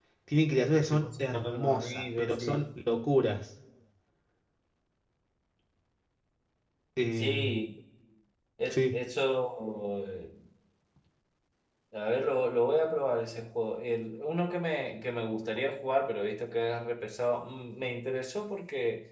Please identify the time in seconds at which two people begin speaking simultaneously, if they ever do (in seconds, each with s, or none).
0.9 s